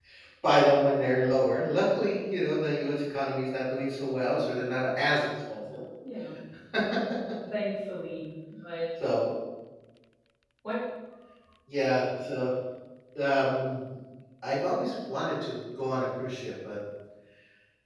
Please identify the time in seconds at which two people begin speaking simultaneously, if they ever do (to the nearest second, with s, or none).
none